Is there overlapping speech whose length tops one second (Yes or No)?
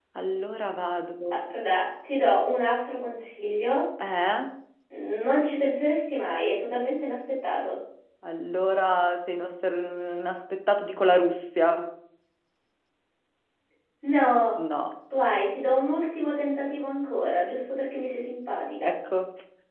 No